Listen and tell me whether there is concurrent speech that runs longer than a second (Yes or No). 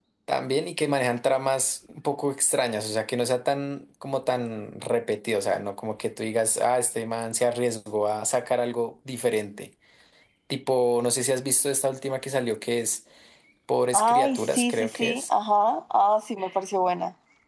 Yes